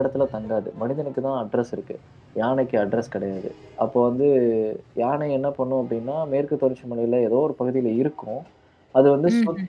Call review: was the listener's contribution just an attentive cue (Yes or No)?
Yes